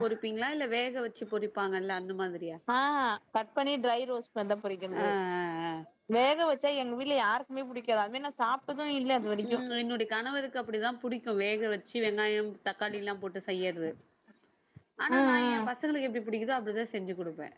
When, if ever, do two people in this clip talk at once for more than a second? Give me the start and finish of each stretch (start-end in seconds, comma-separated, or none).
none